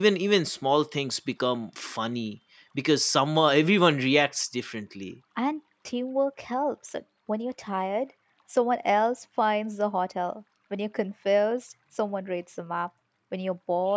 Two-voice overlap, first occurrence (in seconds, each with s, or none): none